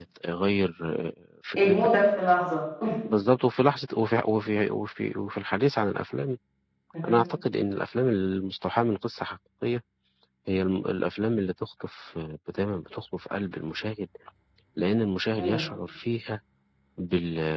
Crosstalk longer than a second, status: none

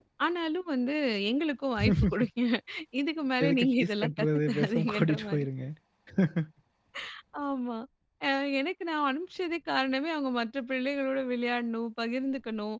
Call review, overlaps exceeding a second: present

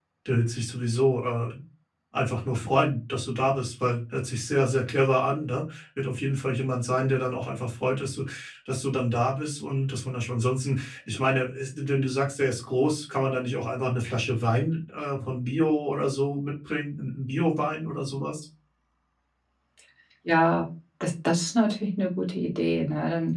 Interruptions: none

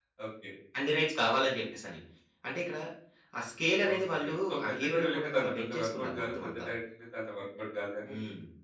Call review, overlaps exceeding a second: present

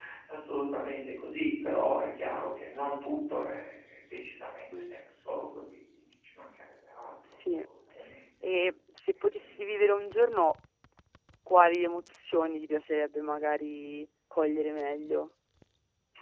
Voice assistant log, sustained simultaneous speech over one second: none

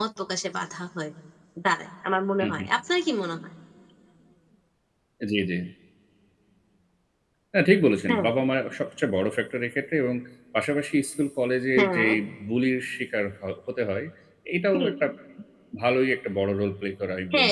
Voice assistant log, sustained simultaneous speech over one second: none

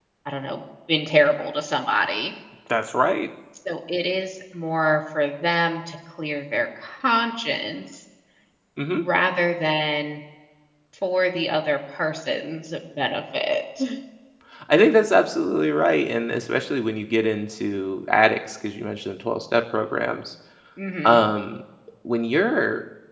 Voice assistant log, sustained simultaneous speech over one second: none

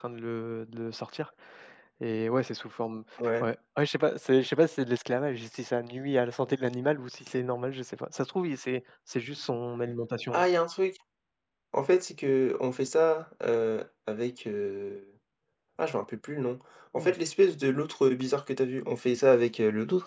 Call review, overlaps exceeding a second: none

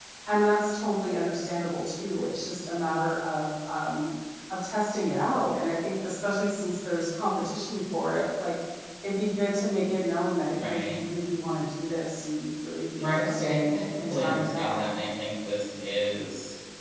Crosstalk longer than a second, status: present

